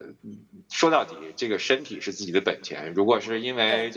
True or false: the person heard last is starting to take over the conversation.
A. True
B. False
B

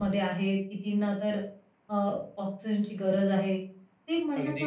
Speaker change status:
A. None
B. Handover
A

